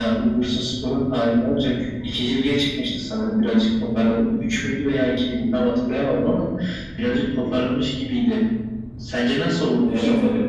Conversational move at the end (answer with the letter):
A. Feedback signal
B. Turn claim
B